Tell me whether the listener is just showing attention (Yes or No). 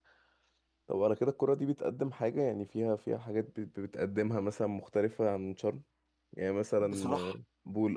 Yes